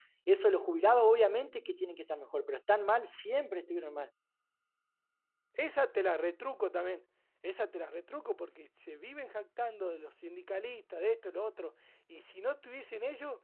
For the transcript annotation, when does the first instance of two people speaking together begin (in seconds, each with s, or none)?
none